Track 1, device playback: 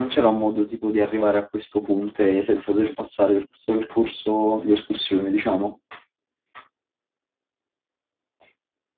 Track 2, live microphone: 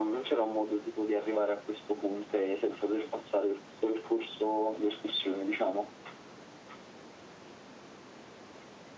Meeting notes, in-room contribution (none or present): none